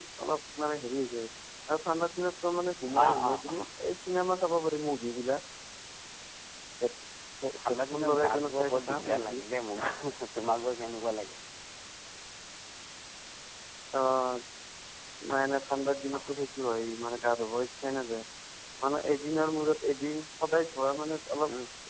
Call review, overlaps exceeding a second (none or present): present